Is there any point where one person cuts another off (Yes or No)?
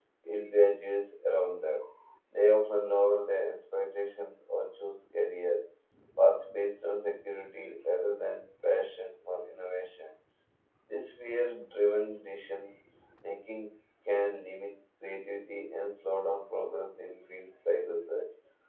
No